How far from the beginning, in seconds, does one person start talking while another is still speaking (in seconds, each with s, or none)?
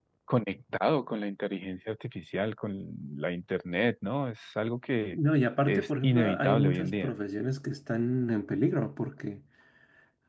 5.7 s